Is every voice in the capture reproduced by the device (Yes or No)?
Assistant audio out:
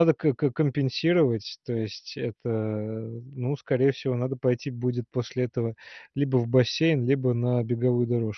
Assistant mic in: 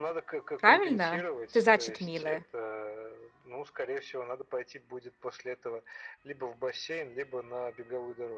No